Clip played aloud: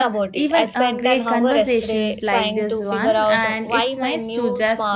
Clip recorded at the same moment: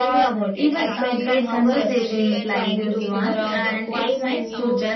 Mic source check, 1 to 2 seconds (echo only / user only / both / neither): both